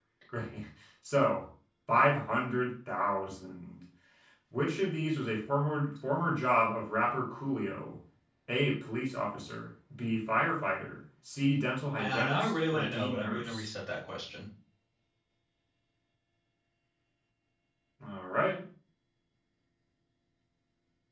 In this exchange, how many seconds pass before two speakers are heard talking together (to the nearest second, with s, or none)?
12 s